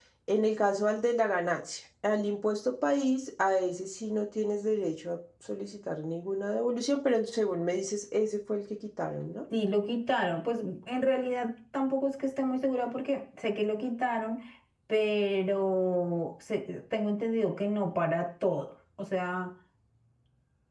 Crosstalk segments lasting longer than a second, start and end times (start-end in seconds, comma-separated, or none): none